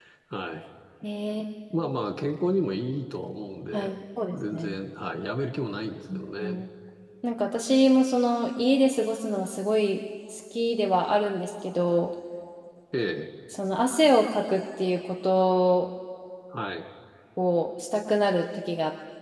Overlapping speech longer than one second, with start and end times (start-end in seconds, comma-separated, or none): none